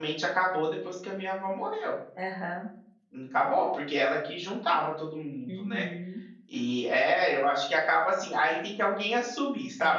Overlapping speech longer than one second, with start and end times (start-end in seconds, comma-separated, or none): none